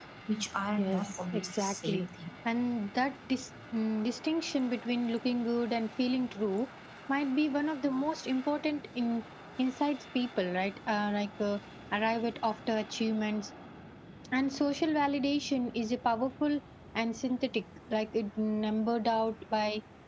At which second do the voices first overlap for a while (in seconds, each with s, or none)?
0.8 s